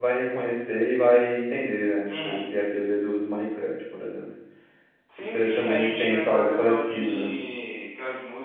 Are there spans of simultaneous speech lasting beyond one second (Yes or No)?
Yes